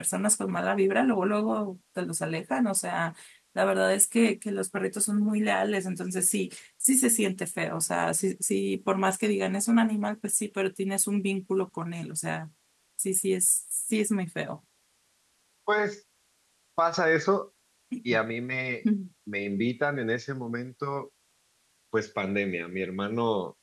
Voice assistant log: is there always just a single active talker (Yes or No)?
Yes